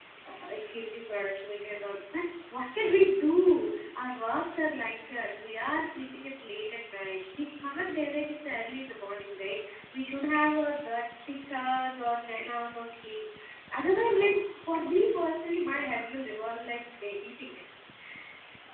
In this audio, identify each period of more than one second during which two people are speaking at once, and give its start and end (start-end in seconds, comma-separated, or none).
none